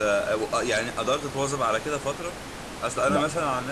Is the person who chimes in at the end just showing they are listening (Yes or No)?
Yes